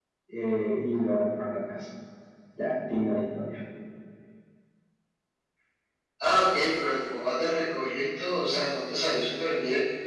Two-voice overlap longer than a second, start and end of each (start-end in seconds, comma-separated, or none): none